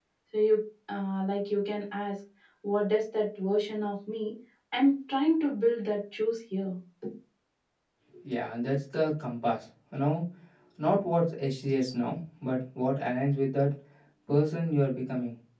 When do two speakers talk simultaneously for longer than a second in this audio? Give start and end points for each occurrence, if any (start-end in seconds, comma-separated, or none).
none